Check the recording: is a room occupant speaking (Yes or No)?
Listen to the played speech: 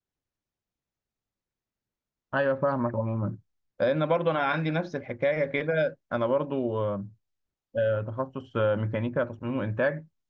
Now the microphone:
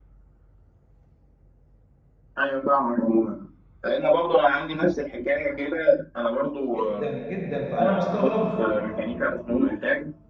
Yes